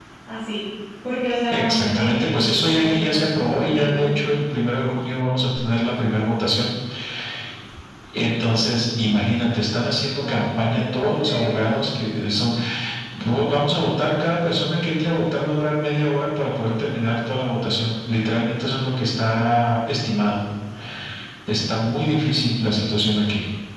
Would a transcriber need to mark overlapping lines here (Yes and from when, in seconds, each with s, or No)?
Yes, from 1.5 s